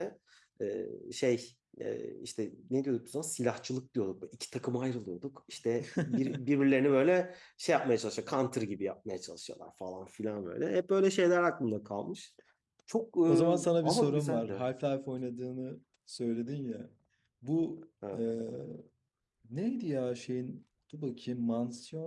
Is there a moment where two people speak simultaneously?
Yes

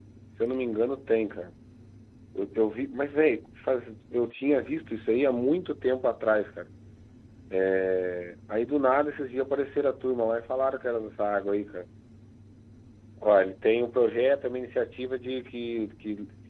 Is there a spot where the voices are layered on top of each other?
No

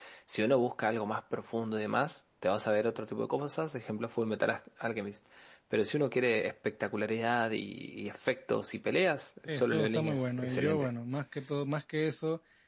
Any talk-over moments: Yes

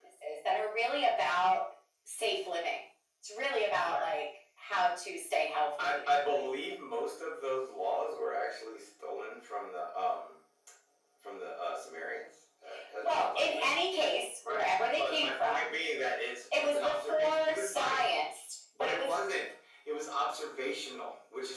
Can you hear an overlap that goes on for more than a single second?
Yes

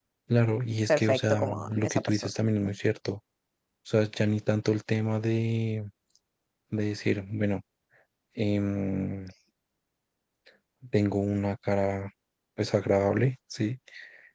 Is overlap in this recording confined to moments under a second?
No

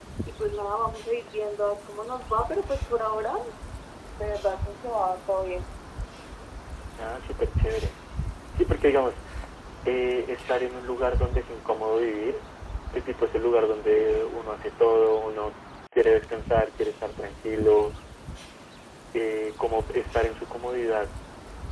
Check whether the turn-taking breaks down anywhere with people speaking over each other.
No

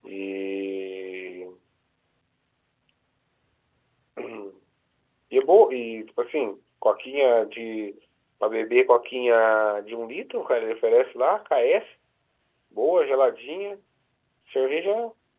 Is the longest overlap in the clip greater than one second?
No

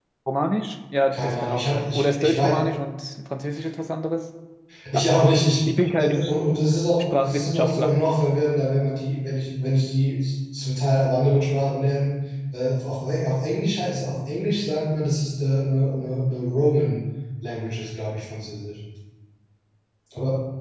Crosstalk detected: Yes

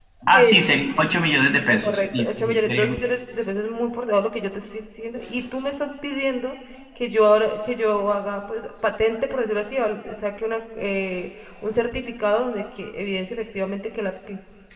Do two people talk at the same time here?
Yes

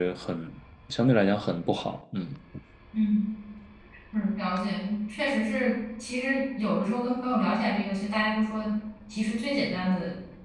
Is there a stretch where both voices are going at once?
No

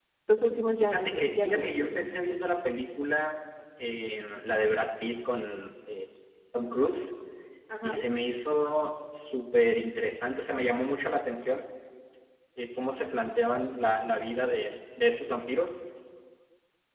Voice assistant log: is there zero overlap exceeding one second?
No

